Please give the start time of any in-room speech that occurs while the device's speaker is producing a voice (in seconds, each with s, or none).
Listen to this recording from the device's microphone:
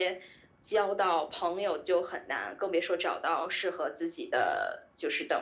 none